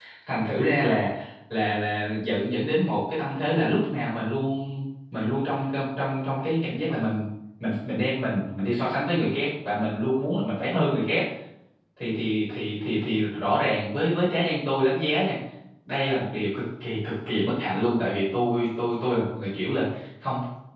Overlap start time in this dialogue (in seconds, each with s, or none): none